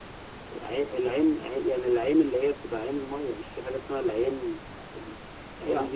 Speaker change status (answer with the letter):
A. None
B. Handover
A